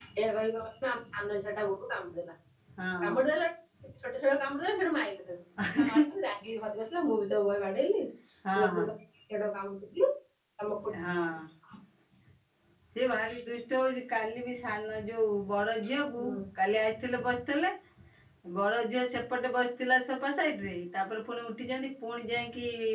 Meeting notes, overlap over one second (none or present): none